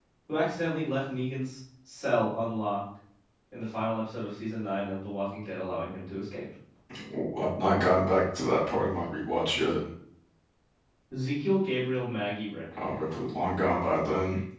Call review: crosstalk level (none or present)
none